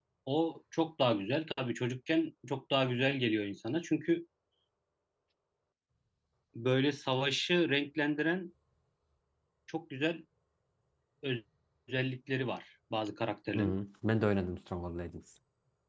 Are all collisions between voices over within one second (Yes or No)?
Yes